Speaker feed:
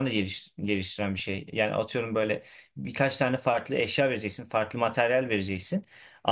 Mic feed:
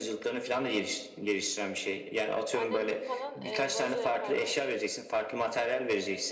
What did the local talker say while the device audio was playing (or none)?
annem gül falan e, vazo yaparlar.